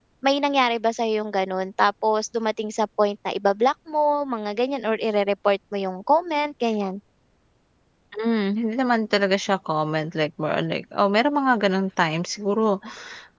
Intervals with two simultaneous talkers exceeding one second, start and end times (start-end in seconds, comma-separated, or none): none